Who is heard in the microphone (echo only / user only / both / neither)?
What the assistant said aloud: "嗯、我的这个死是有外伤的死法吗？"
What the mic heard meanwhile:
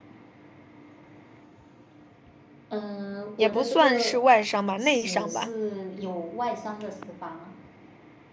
both